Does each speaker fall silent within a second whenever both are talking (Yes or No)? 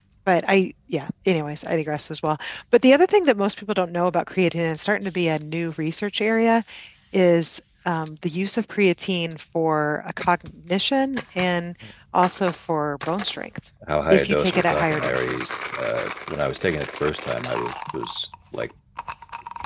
No